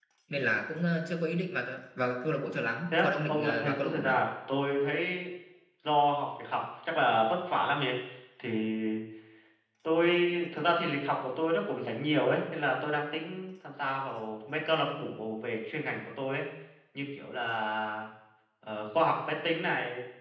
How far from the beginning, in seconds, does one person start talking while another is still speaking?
2.9 s

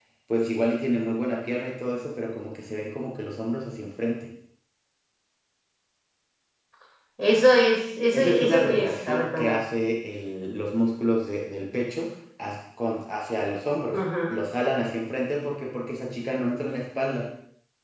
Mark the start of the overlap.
8.1 s

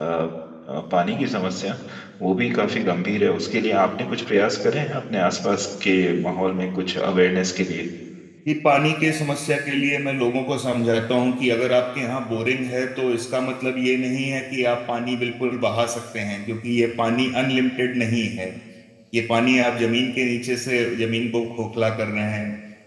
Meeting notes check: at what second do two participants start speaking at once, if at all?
none

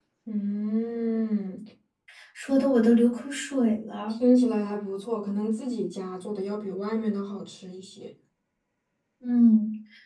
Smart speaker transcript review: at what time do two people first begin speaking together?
none

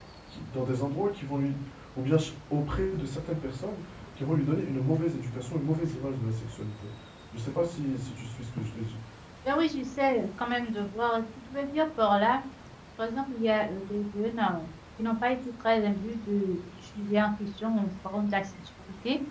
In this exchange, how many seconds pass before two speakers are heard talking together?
none

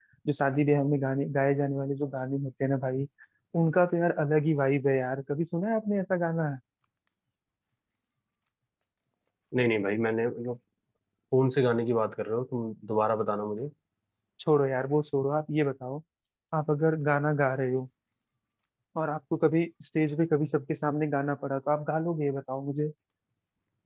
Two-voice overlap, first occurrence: none

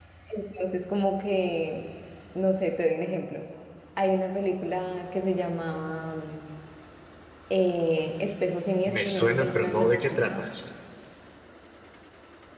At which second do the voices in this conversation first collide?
8.9 s

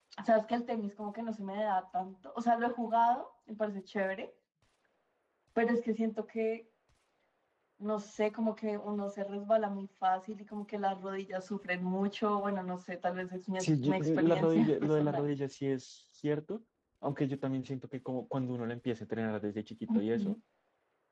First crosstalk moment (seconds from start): 13.6 s

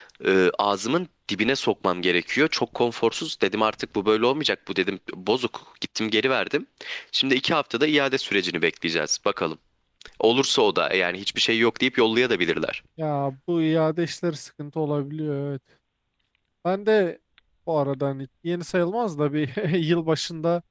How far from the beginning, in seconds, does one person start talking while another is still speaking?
none

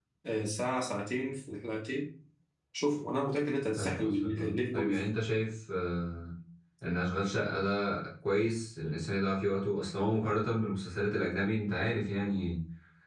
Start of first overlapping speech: 3.8 s

